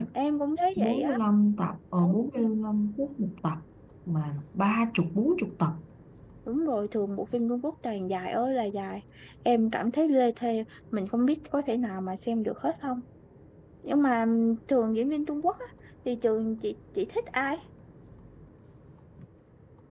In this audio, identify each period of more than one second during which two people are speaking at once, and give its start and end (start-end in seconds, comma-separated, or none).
none